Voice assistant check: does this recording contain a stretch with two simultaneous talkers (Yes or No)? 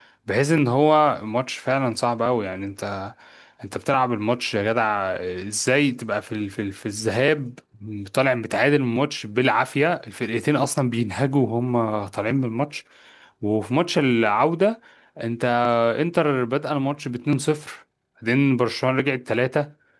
No